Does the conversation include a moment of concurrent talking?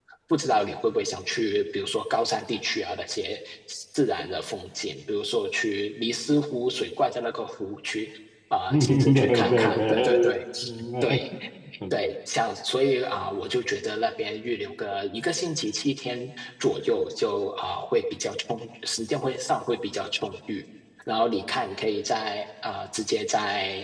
Yes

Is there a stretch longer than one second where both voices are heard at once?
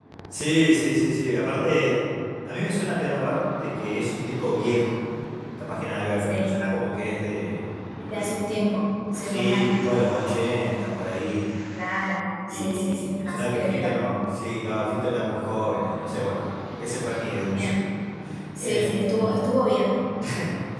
Yes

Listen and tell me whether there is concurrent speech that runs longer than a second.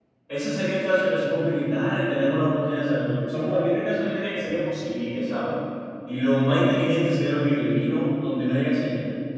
No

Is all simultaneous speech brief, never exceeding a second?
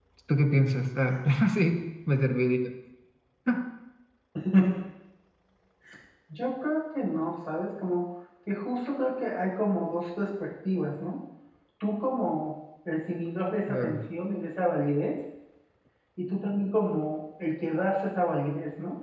Yes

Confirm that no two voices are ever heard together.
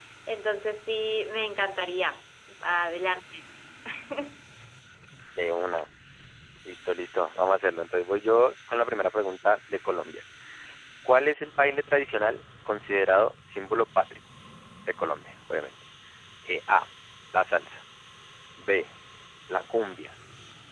Yes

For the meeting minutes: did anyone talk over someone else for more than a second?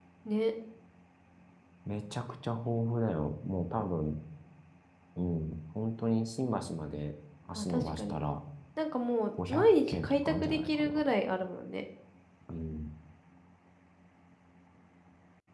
Yes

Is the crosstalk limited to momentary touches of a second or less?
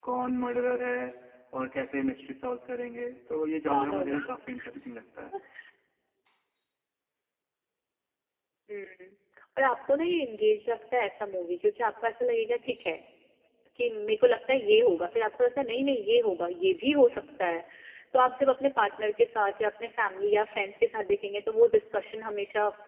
Yes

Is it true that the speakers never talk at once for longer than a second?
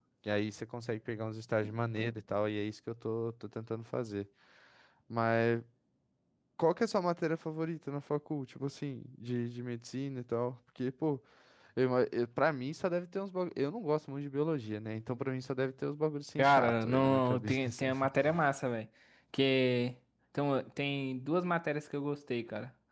No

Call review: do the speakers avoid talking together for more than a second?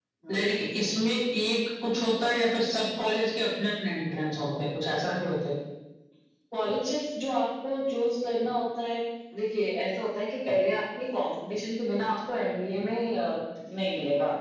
Yes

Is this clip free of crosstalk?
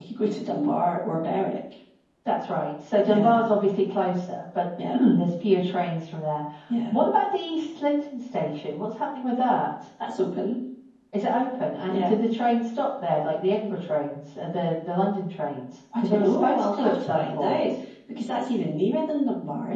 No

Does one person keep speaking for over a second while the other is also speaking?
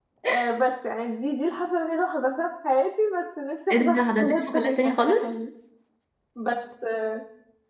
Yes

